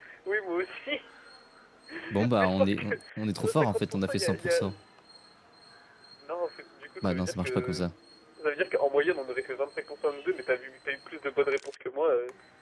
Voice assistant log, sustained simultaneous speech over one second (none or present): present